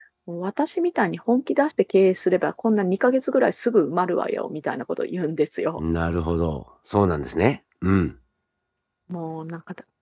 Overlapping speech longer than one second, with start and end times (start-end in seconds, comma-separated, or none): none